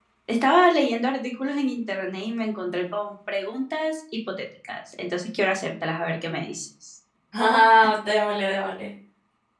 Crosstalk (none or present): none